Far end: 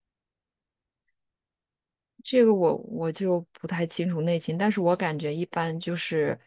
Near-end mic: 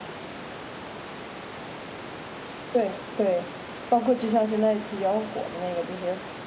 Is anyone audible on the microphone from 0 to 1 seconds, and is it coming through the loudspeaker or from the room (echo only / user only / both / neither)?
neither